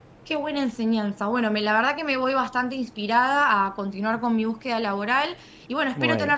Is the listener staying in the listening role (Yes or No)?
Yes